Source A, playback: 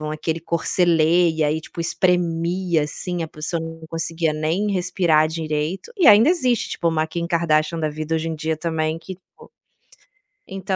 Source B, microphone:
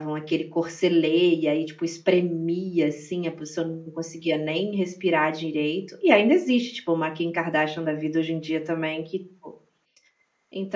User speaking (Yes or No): No